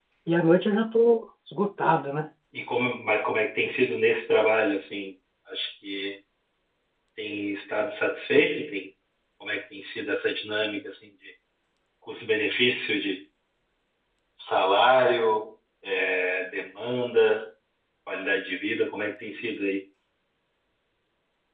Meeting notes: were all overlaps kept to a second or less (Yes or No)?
Yes